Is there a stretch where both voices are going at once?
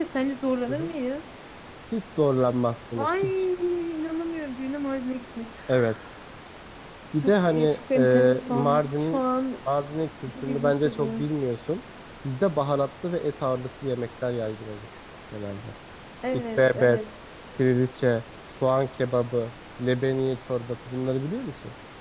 Yes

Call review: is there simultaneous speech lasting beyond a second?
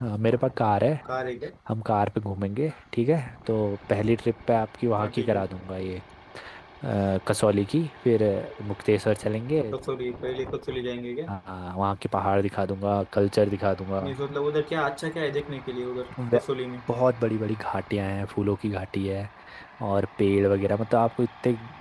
No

